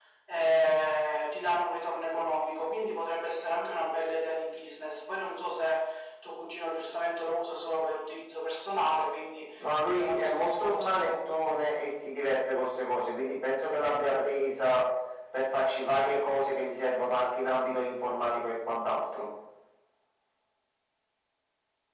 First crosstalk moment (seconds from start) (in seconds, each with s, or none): 9.6 s